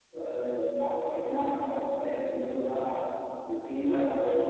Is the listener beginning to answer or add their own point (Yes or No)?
No